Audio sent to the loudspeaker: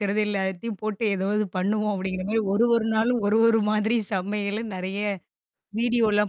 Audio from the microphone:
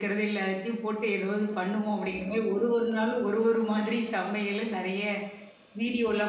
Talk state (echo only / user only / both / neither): echo only